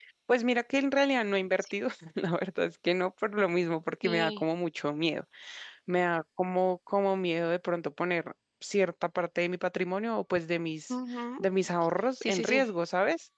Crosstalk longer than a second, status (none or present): none